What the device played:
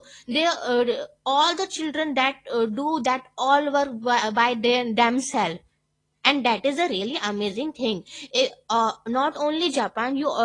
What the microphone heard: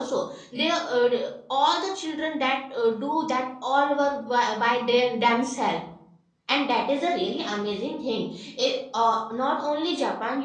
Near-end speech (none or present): none